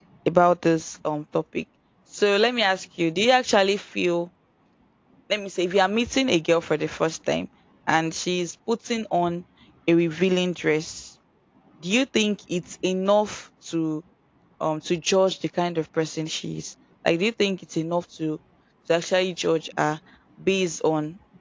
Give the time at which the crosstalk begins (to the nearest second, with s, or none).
none